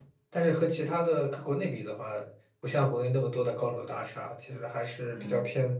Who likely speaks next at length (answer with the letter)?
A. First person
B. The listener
A